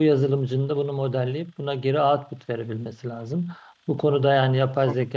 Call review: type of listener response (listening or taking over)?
listening